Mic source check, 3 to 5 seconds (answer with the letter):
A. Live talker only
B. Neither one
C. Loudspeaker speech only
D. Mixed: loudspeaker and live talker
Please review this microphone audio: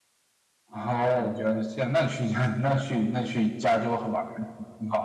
C